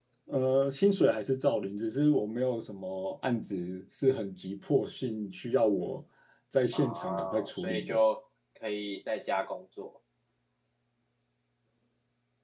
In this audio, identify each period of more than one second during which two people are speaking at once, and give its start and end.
6.7-8.0

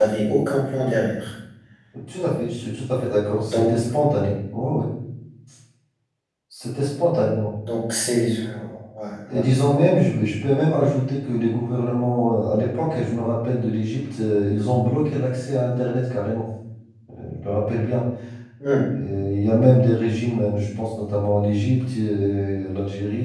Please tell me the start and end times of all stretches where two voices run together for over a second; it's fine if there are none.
none

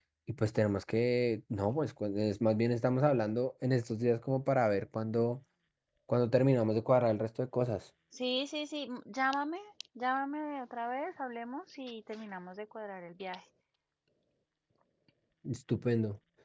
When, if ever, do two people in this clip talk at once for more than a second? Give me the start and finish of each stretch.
none

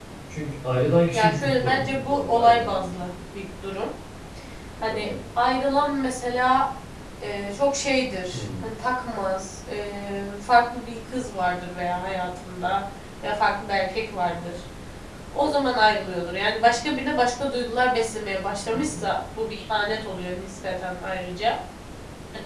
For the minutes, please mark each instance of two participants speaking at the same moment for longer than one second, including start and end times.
1.1-2.8

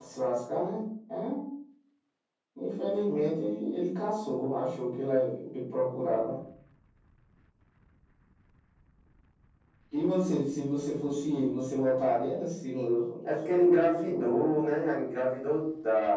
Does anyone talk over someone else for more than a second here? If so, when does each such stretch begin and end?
13.2-14.5

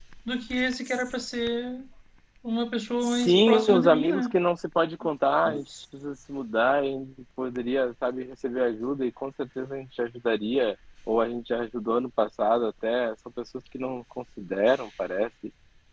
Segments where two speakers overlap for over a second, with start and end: 3.0-4.4

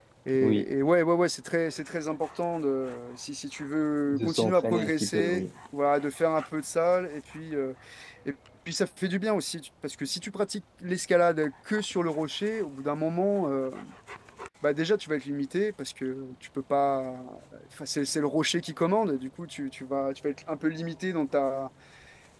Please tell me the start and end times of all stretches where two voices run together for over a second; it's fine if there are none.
4.1-5.4

